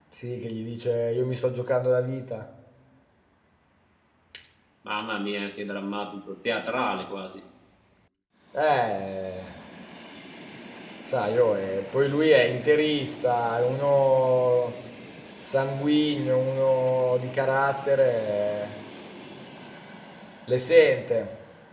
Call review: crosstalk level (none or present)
none